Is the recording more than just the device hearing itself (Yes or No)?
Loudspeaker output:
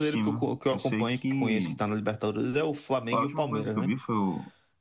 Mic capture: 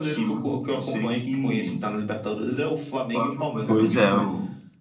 Yes